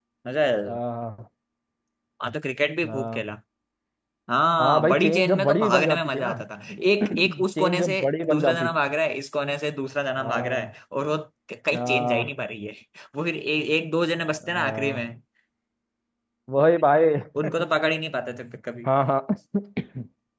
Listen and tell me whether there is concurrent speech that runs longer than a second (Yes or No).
Yes